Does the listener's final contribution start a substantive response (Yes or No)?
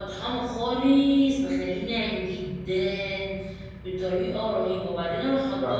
No